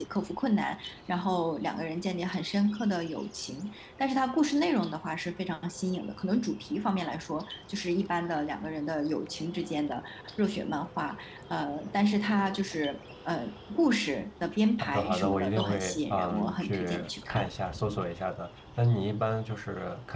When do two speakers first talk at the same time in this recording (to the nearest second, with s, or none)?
15 s